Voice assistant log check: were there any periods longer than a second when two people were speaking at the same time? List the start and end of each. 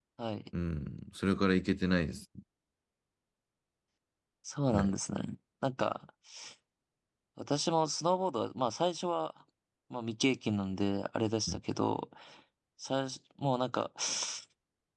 none

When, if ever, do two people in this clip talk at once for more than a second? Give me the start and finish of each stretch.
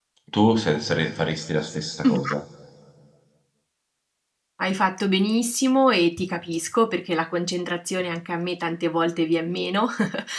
none

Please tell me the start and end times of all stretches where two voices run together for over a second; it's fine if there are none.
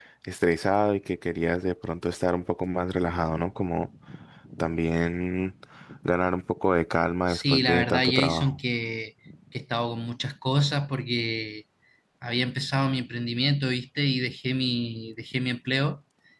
7.3-8.6

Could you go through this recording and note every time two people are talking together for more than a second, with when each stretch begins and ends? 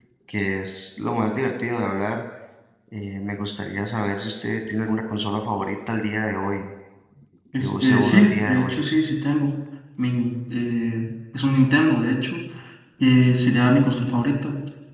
7.6-8.8

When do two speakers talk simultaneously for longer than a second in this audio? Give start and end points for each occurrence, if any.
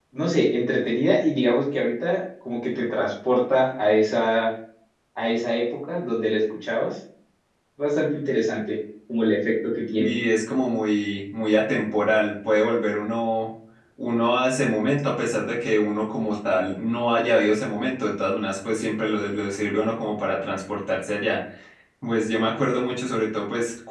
none

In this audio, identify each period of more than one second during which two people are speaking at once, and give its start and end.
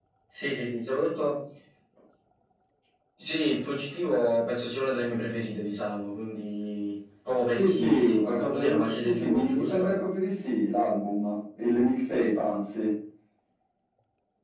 7.5-9.9

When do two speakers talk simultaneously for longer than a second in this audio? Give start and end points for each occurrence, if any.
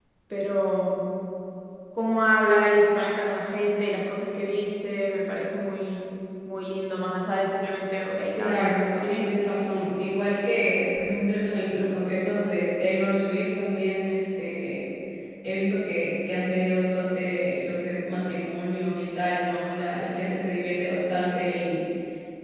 8.3-10.0

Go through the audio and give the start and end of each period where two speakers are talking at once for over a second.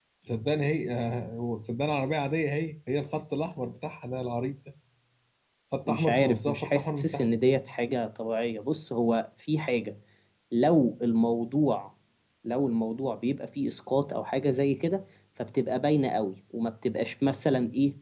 5.9-7.2

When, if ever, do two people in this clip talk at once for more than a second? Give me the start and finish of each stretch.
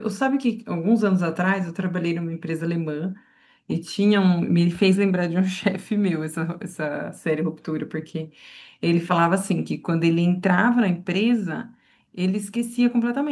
none

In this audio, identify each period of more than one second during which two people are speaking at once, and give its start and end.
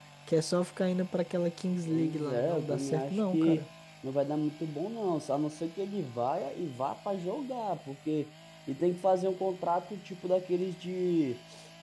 1.9-3.6

